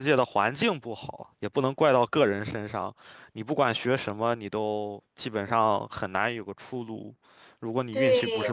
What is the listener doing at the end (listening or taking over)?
taking over